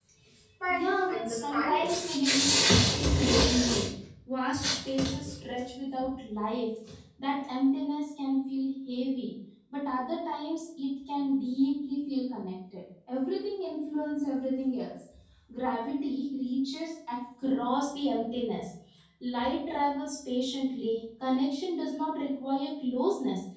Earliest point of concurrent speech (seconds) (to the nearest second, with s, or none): 1 s